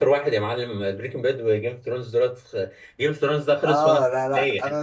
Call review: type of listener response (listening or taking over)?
taking over